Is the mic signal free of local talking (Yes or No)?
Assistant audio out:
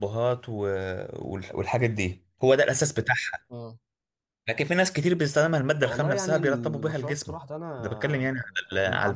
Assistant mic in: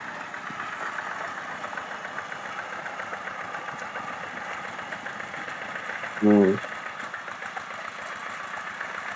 No